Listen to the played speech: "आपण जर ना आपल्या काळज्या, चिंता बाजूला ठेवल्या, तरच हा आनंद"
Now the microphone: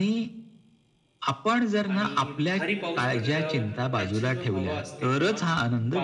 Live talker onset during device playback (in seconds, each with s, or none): 1.9 s